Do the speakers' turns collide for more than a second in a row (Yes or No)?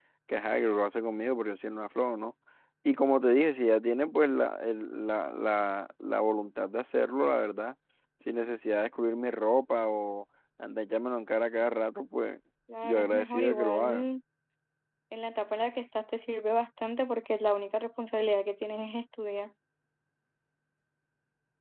Yes